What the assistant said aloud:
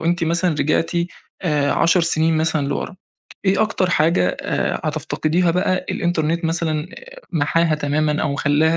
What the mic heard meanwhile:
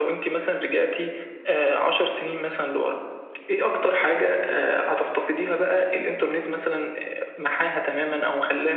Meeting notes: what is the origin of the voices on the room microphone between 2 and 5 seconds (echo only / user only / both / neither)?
echo only